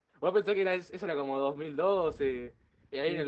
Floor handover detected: No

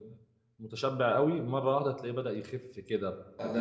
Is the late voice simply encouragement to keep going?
No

